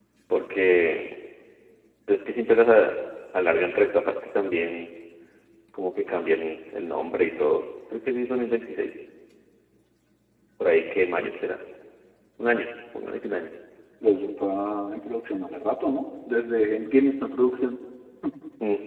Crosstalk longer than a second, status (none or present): none